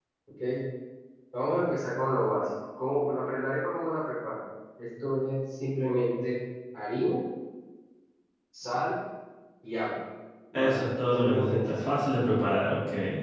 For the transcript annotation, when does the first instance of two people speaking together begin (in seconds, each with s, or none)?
10.5 s